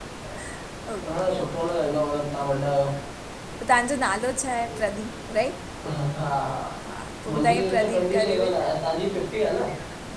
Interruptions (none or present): present